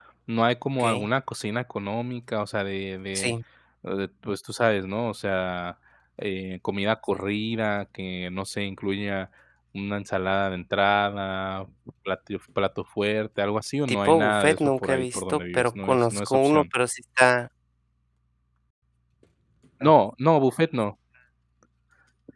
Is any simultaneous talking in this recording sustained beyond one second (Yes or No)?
Yes